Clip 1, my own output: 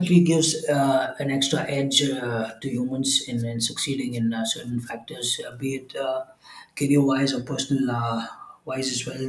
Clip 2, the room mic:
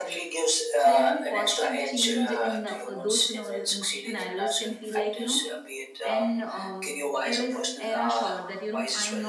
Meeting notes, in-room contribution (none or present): present